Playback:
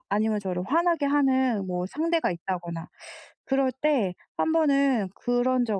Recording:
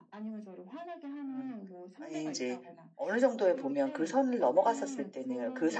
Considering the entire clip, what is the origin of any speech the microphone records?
both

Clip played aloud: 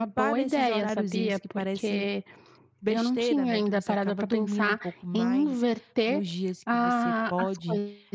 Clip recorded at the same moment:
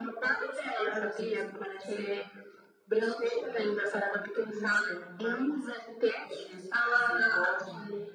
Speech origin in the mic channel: echo only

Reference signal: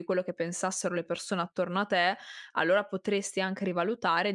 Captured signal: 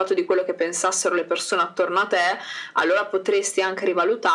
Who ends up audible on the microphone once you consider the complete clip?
echo only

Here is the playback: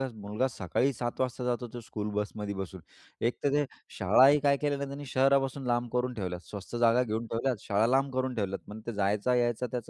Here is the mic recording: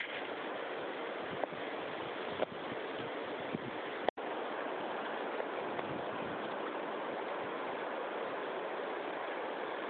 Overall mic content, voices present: neither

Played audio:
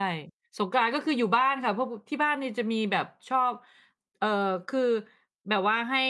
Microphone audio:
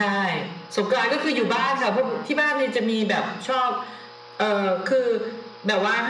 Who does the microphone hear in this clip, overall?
both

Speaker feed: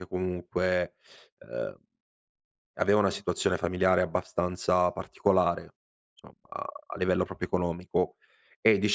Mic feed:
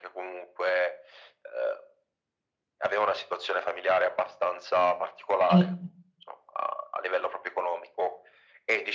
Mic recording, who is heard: both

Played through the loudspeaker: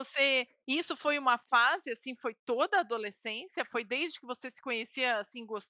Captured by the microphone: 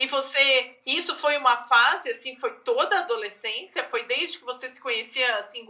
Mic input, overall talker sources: echo only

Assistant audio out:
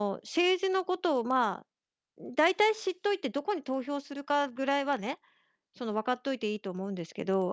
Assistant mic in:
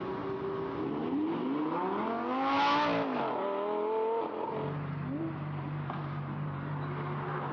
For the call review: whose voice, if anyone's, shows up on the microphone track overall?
neither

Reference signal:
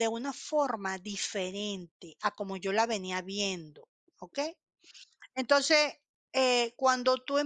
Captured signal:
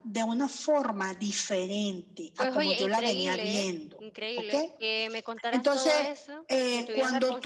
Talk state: both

